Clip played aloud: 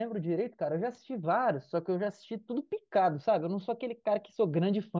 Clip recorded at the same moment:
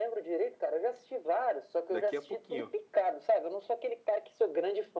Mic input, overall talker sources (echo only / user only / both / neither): both